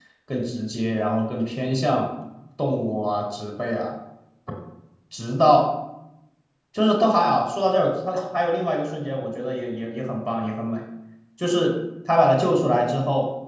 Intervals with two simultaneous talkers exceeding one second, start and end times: none

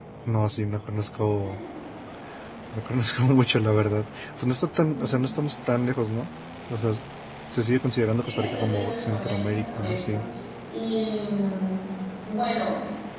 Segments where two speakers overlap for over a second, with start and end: 8.2-10.2

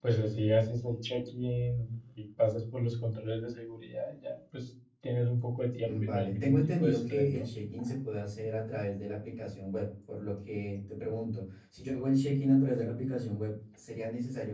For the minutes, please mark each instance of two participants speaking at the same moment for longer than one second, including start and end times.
5.8-7.5

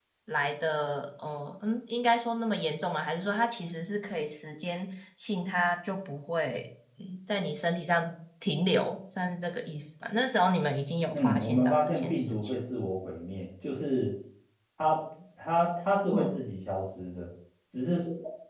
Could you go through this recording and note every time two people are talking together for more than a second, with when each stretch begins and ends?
11.1-12.5

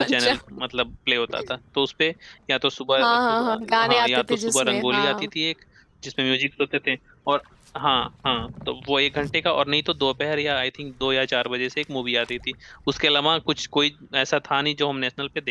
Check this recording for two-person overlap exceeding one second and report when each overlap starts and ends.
3.0-5.3

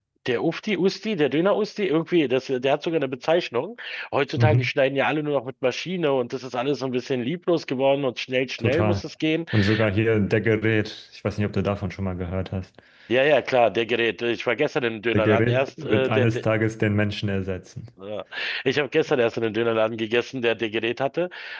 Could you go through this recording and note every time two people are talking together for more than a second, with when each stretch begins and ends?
15.1-16.4

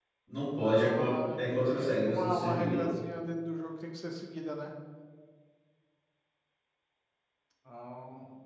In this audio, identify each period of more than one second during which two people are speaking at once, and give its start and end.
0.6-2.9

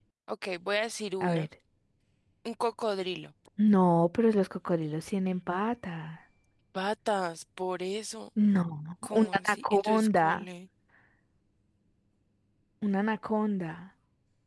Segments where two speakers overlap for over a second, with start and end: 9.2-10.4

